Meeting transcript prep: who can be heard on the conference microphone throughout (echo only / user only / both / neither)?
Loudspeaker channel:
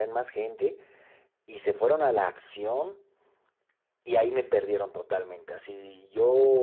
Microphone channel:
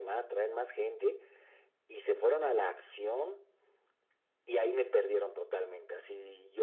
echo only